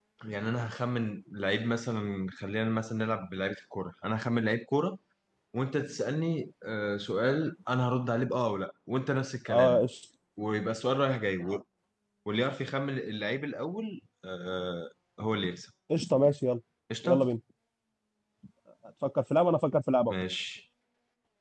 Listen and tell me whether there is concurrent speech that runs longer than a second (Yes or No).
No